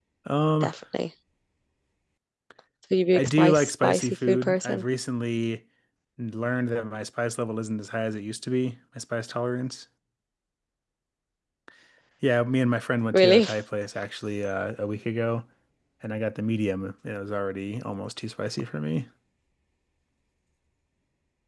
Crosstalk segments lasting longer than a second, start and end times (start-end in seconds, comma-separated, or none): 3.1-4.8